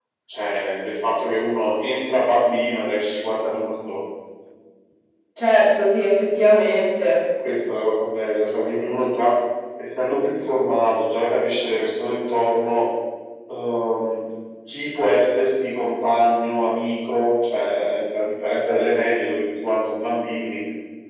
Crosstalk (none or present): none